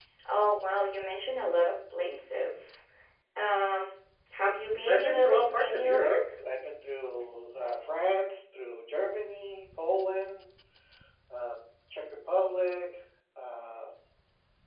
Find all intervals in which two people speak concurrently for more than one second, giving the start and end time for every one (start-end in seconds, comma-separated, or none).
4.8-6.1